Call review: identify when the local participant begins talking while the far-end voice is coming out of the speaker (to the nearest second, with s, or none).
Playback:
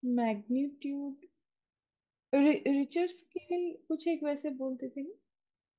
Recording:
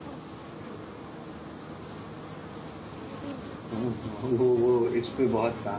4 s